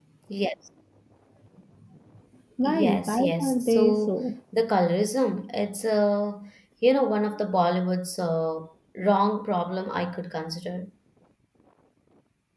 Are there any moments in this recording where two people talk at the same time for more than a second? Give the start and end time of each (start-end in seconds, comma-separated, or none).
2.6-4.2